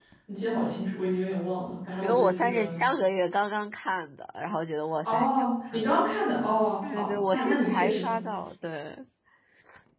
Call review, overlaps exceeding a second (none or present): present